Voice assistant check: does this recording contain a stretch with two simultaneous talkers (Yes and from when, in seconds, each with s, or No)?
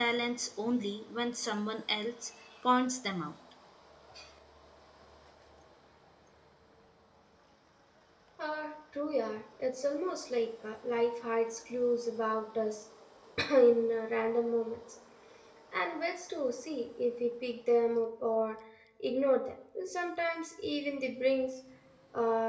No